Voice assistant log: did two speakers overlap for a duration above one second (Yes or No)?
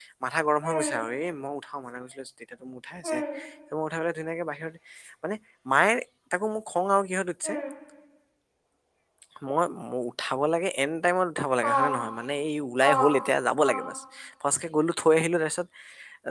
No